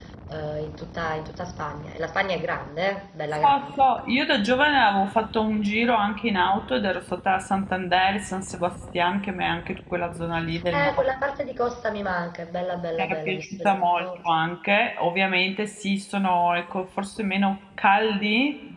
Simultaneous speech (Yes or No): Yes